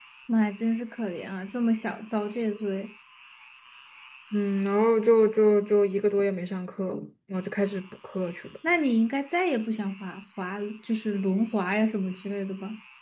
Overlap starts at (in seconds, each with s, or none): none